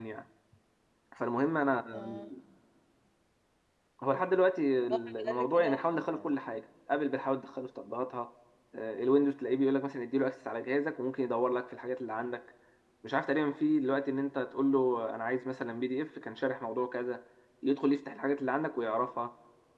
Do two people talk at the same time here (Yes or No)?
Yes